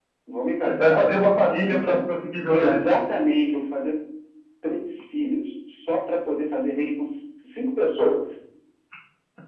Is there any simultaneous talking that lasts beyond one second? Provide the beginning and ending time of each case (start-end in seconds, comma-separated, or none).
none